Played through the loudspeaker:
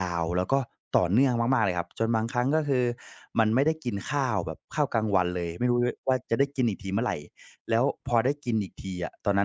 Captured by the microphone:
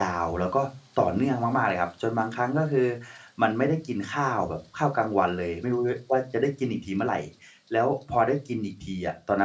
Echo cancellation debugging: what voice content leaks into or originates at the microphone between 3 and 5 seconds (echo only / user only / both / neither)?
echo only